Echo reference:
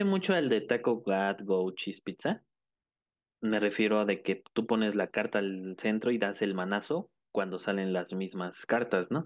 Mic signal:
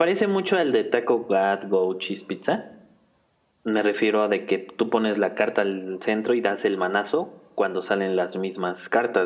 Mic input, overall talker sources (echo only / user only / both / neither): echo only